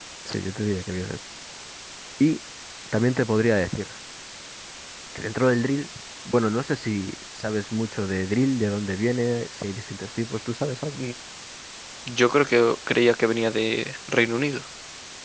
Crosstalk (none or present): none